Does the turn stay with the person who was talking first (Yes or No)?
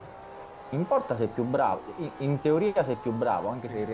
Yes